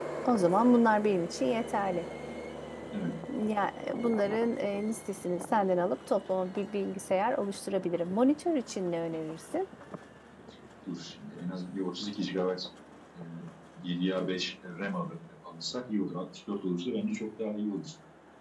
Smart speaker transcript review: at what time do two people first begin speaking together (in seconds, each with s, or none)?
none